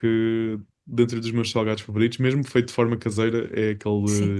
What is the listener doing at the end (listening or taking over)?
listening